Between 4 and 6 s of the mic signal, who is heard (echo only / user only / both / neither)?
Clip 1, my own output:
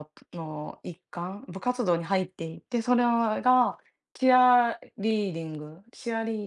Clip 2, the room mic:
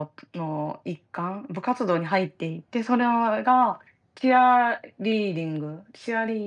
echo only